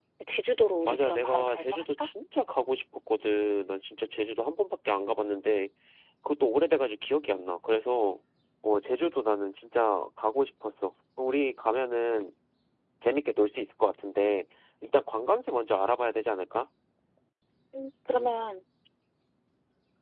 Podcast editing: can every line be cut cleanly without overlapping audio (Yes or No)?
No